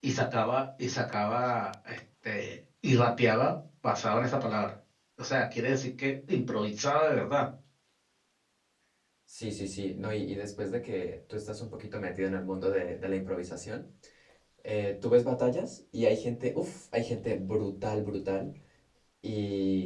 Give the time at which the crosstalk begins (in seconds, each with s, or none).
none